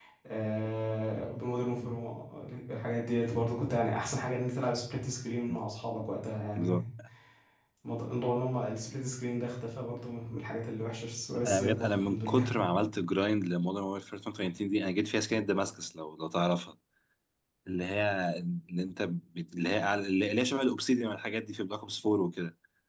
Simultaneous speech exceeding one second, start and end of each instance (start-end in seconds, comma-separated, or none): 11.4-12.7